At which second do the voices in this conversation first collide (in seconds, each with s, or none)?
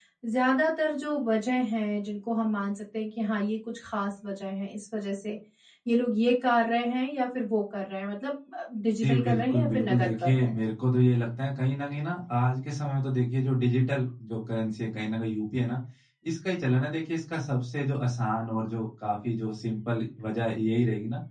9.0 s